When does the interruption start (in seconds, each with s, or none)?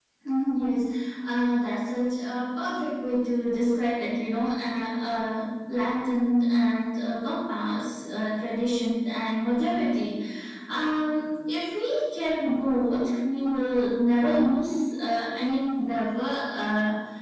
none